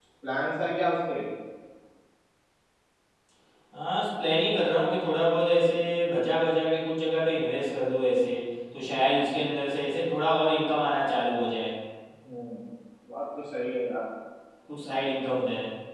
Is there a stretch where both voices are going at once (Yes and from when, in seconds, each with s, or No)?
No